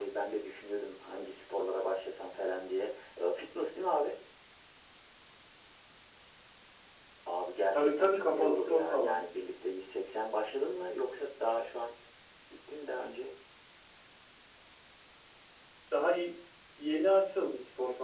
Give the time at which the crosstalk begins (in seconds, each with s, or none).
7.7 s